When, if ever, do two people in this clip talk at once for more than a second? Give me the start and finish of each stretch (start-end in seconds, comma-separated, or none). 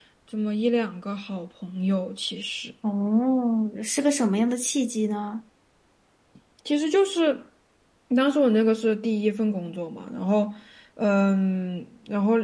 none